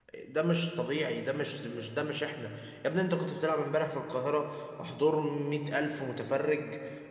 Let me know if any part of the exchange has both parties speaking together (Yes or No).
No